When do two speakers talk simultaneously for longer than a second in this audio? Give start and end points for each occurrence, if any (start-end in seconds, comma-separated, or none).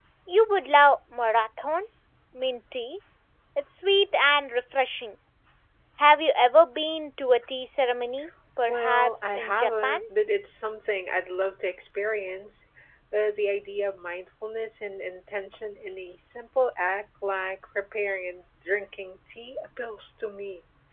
8.7-10.0